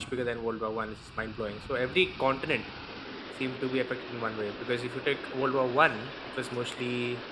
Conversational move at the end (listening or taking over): listening